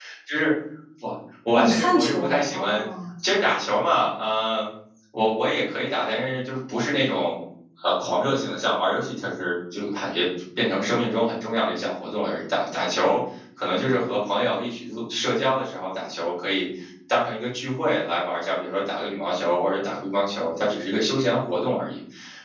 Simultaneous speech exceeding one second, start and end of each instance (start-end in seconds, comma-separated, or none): 1.5-2.8